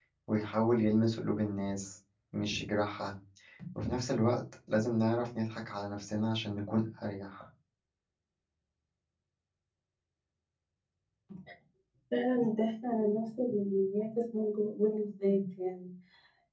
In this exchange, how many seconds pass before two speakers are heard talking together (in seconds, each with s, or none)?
none